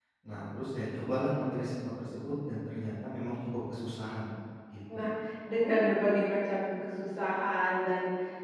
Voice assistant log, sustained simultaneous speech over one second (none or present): none